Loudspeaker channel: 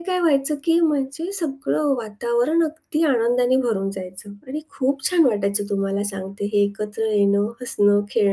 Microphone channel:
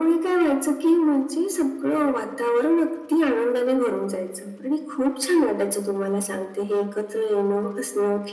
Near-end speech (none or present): none